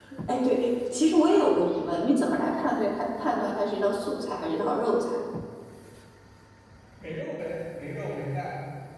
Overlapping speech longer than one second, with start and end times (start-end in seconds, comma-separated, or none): none